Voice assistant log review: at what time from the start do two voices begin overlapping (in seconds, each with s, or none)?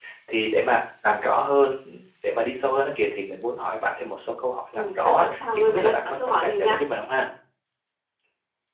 4.7 s